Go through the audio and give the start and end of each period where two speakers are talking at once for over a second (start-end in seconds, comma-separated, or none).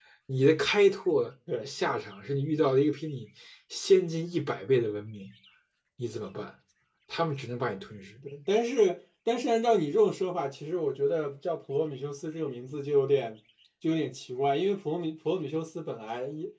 none